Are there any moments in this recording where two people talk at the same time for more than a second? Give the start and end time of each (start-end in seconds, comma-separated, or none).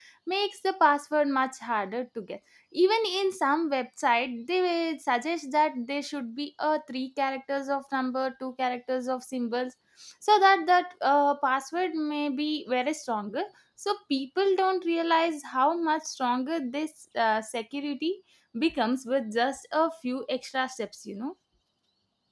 none